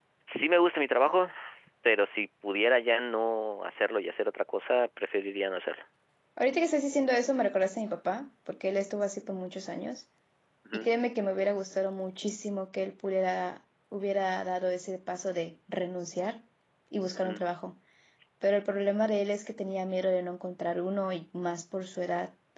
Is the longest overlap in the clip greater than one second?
No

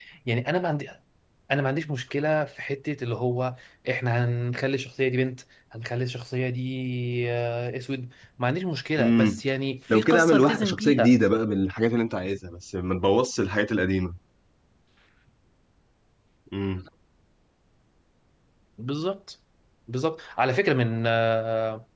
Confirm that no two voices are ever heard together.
No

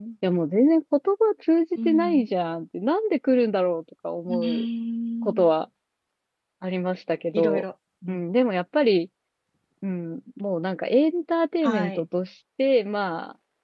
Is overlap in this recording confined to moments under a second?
Yes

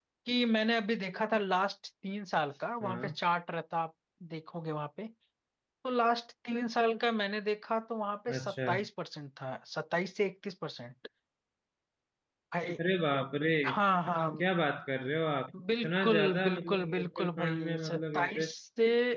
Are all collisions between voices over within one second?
No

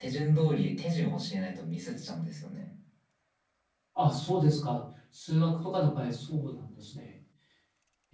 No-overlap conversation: Yes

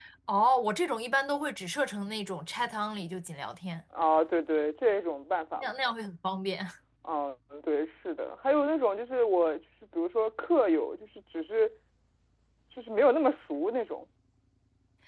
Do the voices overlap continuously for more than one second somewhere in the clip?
No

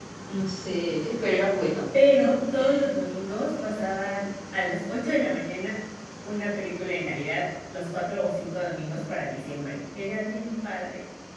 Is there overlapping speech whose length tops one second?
No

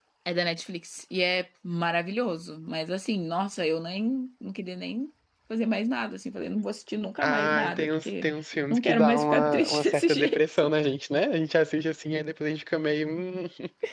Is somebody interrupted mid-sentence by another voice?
Yes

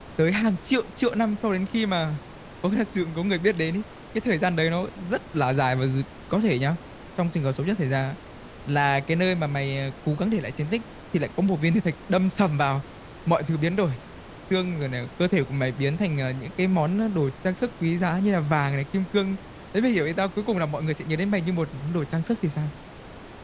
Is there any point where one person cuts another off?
No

